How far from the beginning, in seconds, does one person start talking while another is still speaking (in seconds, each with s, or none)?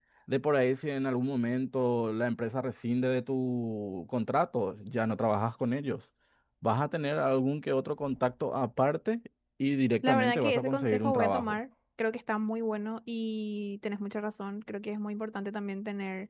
10.0 s